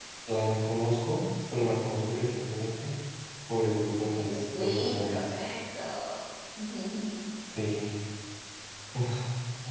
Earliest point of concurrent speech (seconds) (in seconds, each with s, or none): 4.1 s